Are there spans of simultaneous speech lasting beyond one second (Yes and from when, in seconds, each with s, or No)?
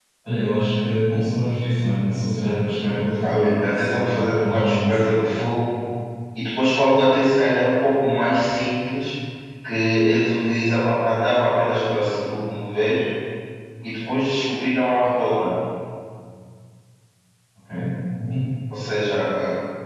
Yes, from 3.2 s